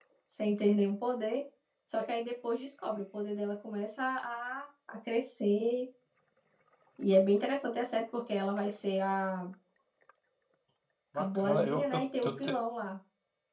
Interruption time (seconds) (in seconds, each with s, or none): 11.2 s